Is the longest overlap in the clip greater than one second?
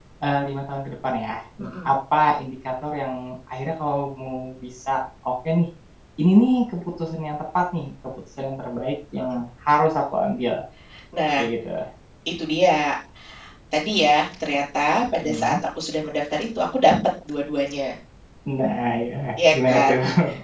No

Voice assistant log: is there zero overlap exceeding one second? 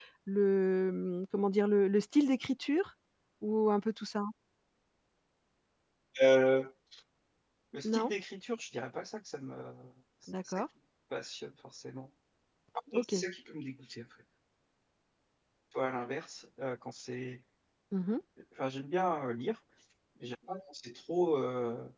Yes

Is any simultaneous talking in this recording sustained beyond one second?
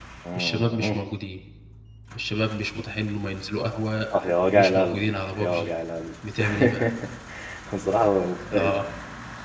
Yes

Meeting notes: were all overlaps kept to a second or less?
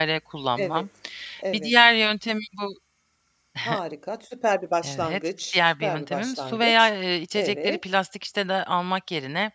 No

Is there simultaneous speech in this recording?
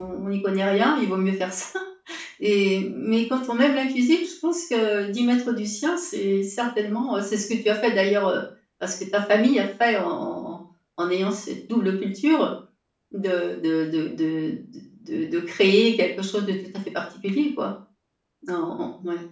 No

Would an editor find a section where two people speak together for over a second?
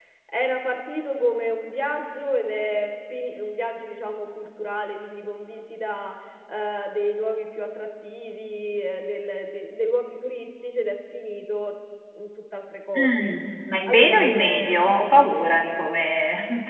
Yes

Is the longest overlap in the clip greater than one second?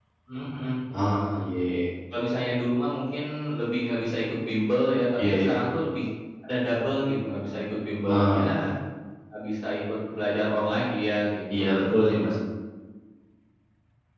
No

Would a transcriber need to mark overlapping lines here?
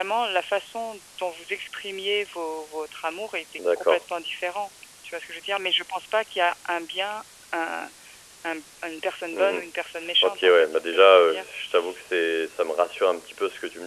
Yes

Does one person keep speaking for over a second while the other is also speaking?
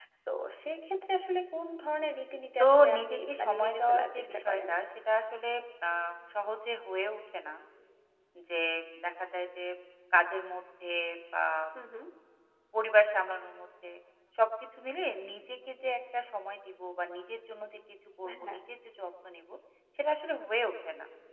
Yes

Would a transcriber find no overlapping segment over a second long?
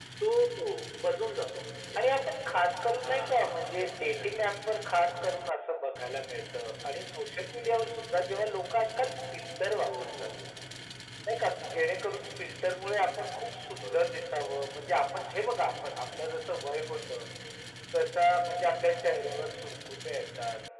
No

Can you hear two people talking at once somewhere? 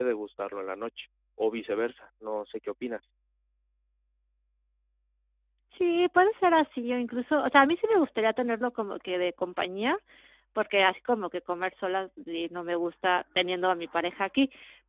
No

